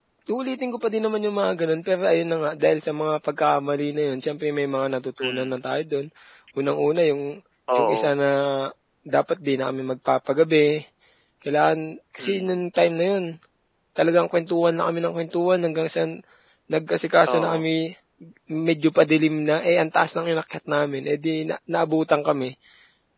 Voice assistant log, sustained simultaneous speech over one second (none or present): none